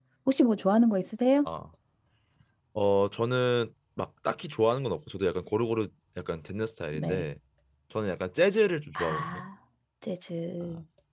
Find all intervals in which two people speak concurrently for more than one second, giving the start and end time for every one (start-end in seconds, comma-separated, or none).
none